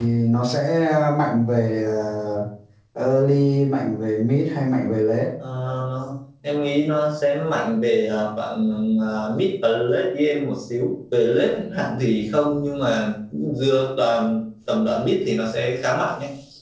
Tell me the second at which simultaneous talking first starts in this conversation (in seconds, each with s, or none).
none